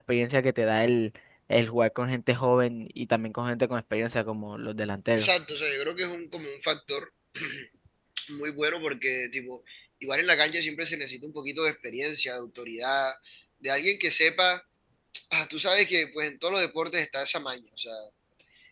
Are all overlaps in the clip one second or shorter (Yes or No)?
Yes